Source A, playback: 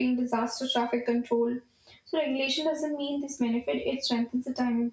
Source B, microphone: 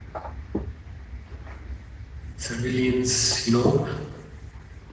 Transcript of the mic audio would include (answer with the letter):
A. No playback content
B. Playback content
A